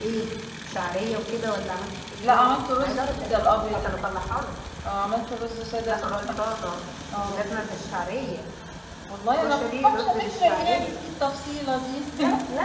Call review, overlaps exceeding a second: present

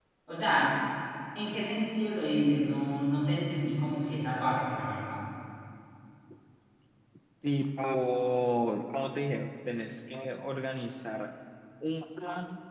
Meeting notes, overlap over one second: none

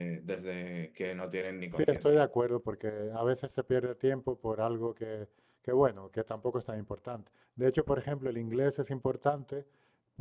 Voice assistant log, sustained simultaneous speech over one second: none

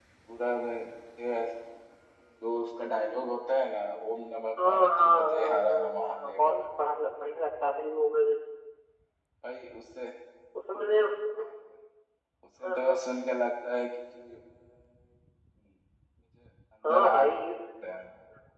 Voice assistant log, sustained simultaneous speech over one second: present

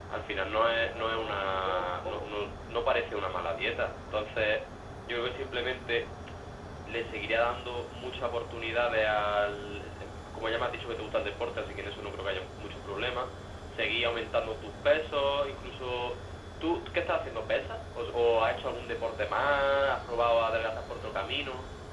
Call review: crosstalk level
present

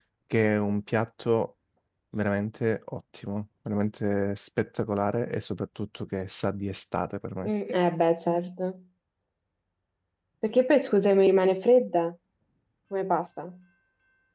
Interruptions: none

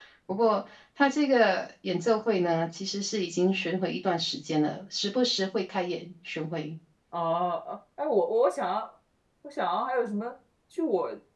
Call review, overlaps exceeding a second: none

